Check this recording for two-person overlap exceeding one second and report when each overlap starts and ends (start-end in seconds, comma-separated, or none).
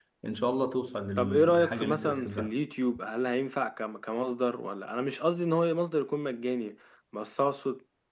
1.2-2.5